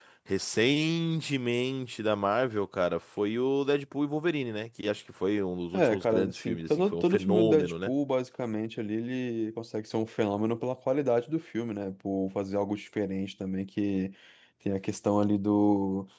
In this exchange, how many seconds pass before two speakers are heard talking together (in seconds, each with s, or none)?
5.7 s